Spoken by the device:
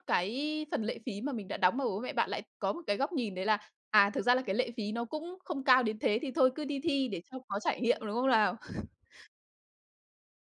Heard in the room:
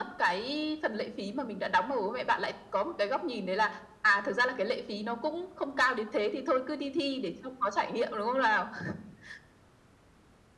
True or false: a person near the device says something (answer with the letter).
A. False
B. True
A